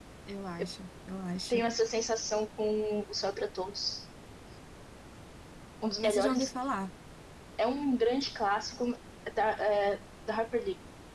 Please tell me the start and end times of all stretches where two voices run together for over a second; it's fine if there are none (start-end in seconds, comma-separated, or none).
none